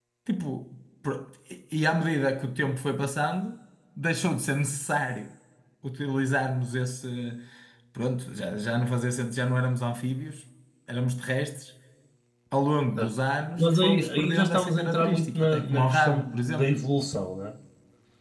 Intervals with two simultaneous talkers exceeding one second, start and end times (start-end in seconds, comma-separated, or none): 13.6-16.7